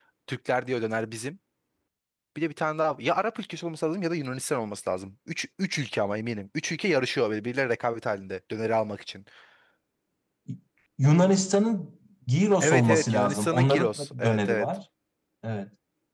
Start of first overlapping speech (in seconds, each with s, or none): 12.6 s